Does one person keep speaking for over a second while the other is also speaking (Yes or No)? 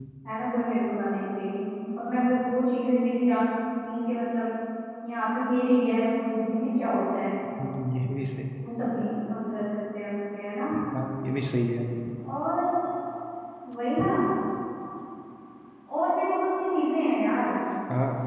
No